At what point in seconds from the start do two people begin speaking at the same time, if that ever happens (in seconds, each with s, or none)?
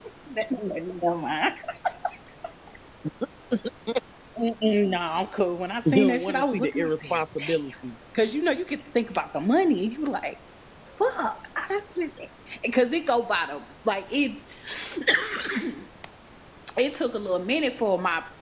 5.8 s